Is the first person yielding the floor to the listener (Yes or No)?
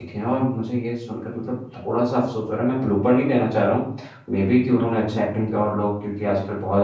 No